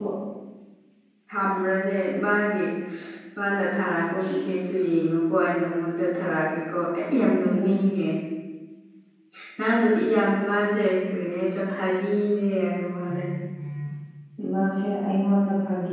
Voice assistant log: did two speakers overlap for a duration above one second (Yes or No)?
No